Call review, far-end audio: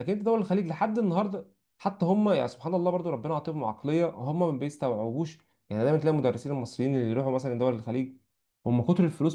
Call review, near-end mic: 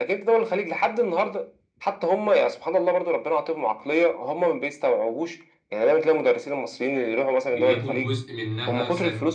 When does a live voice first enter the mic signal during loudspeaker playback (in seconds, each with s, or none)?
7.5 s